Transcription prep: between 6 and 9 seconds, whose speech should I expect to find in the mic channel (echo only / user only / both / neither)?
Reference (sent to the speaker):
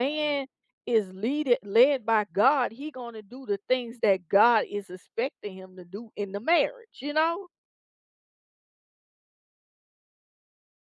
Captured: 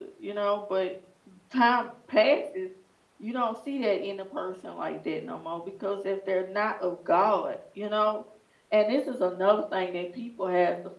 user only